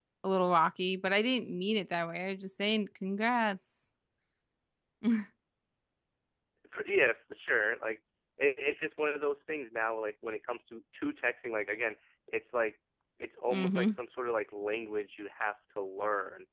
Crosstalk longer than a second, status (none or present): none